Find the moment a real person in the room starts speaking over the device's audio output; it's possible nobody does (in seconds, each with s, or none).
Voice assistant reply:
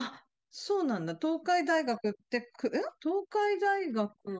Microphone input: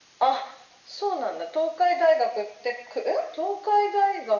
none